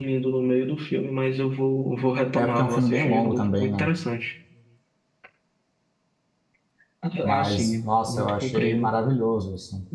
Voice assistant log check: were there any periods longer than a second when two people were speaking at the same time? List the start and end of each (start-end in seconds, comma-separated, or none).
2.4-3.9, 7.2-8.9